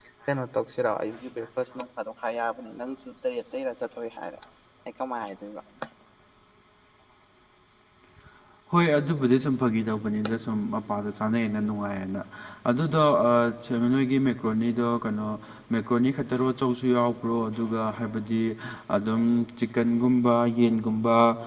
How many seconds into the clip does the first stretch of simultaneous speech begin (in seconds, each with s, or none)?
none